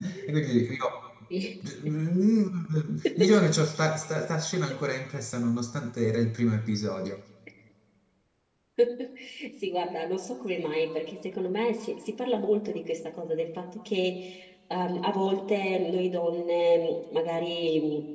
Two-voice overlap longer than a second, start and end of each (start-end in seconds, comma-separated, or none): none